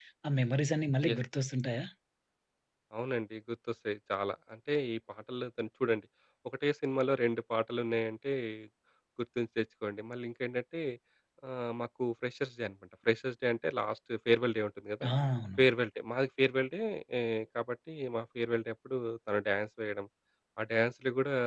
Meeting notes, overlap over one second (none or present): none